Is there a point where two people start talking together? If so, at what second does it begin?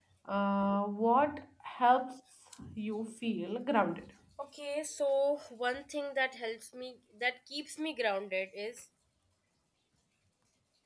none

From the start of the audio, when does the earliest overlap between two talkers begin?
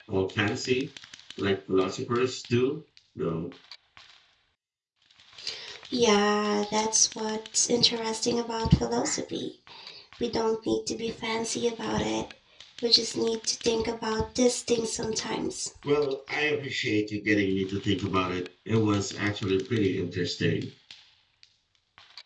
none

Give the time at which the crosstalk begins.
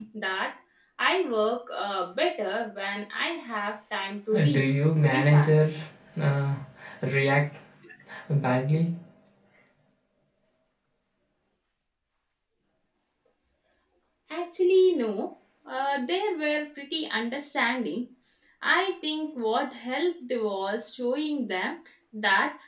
4 s

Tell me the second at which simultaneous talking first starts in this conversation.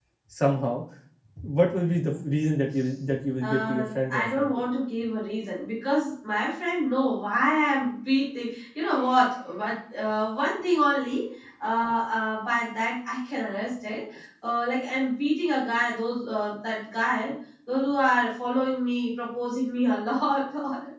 3 s

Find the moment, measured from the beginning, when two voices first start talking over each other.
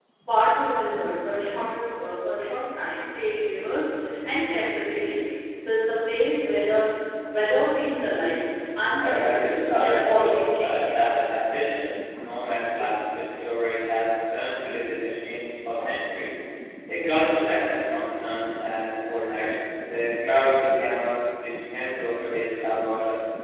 9 s

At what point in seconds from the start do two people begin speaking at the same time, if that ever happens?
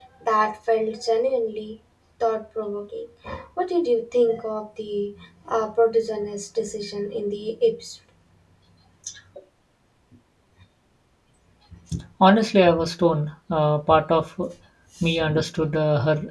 none

